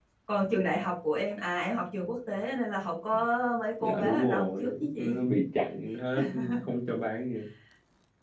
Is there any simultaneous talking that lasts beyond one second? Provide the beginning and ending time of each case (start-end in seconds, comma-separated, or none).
3.8-5.2